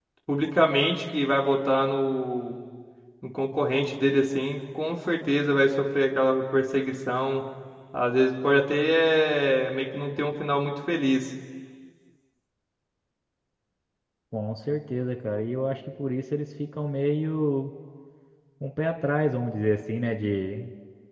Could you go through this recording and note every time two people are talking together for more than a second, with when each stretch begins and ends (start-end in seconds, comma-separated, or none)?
none